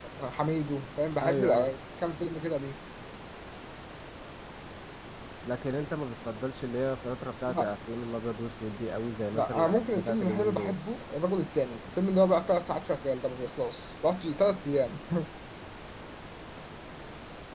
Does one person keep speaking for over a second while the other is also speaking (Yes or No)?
Yes